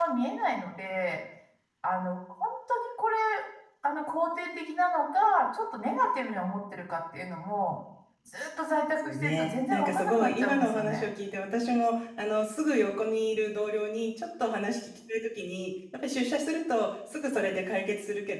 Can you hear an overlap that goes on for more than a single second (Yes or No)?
Yes